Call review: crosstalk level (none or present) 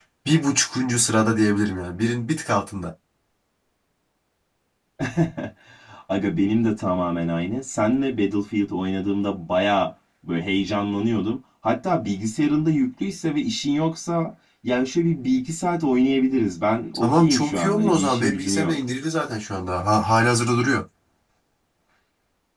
present